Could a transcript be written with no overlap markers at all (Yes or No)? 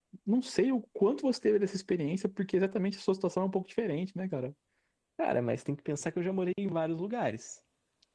Yes